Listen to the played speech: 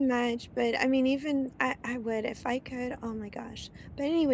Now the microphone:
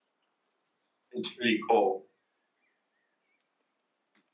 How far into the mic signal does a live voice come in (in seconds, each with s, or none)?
1.1 s